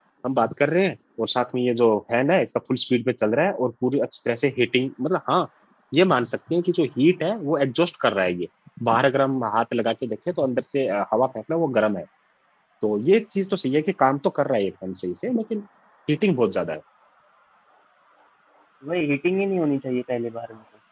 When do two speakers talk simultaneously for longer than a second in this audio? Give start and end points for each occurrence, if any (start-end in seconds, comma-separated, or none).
none